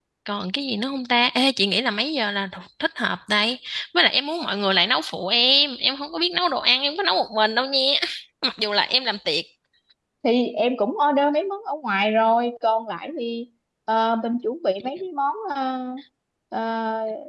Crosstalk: none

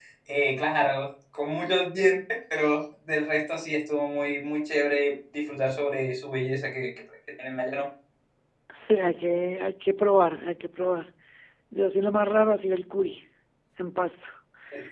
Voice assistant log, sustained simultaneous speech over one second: none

